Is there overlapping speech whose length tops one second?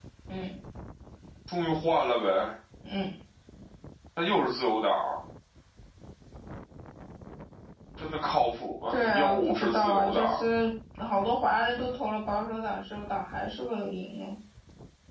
Yes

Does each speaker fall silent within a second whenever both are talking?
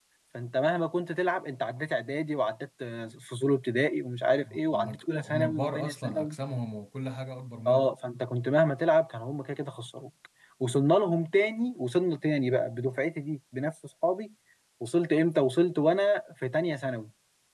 No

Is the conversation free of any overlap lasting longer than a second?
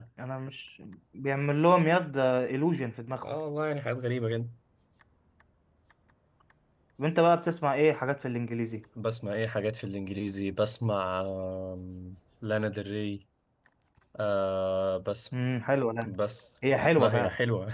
Yes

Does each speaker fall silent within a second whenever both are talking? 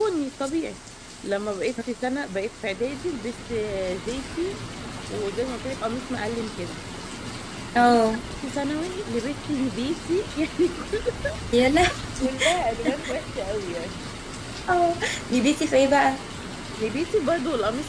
Yes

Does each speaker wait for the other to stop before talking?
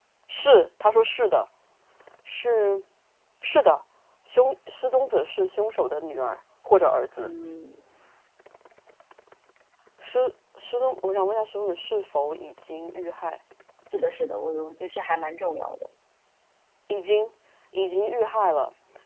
Yes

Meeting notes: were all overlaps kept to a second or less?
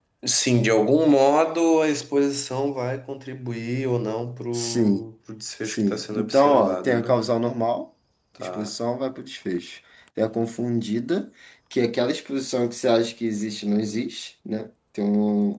No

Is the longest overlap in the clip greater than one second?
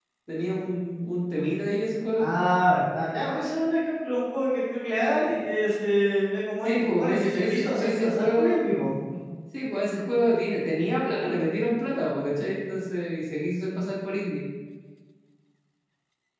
Yes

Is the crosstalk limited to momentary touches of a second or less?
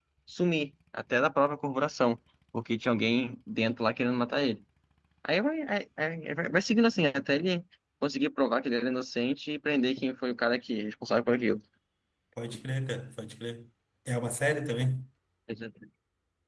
Yes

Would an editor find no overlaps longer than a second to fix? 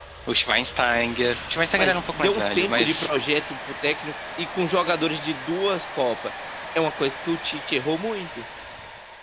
No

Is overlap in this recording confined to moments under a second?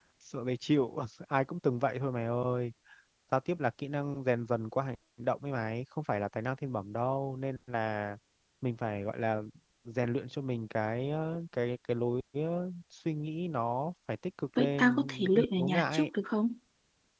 No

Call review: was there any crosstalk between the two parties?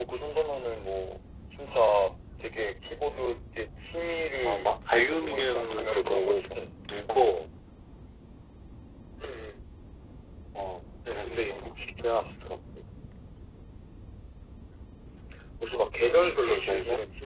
Yes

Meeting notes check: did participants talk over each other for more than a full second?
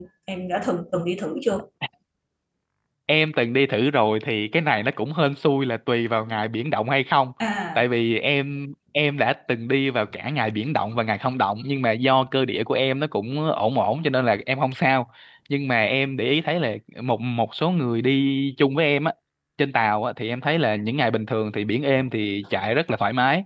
No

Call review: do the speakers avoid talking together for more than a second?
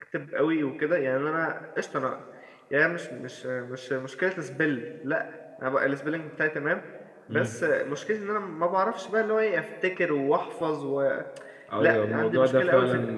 No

